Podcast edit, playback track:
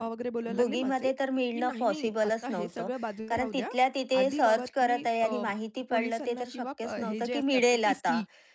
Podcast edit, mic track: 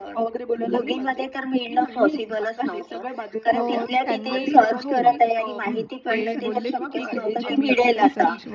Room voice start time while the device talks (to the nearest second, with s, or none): 4 s